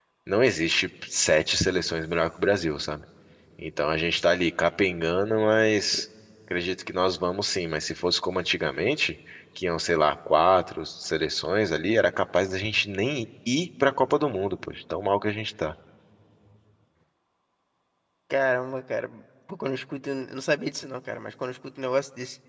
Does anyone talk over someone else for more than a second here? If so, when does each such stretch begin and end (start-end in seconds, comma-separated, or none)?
none